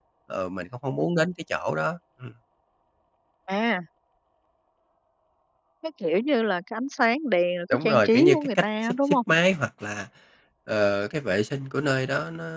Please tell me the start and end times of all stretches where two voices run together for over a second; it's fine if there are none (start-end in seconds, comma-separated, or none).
7.7-9.2